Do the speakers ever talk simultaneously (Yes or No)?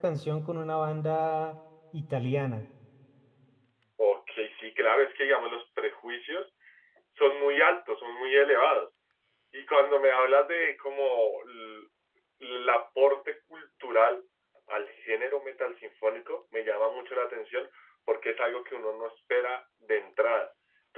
No